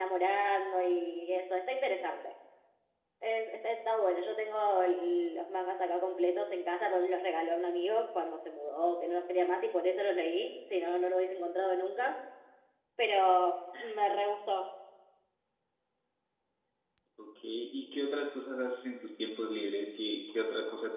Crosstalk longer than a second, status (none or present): none